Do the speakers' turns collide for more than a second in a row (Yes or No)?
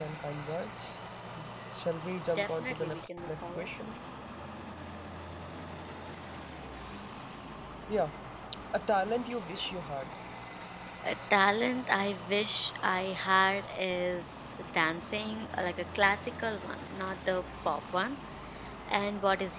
Yes